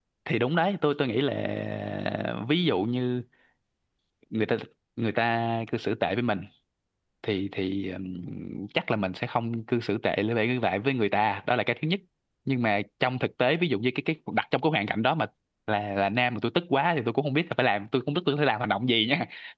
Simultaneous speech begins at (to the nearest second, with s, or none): none